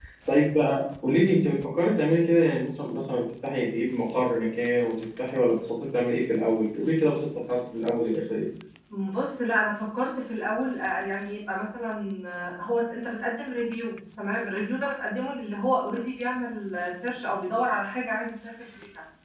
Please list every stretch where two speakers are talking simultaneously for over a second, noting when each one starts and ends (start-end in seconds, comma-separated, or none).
none